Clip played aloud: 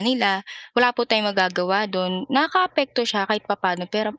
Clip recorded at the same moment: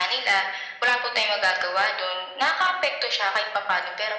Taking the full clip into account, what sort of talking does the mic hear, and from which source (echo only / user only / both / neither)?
echo only